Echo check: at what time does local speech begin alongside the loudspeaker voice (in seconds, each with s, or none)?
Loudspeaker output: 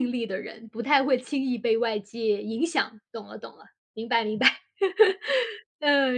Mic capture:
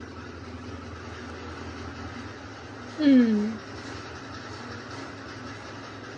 3.0 s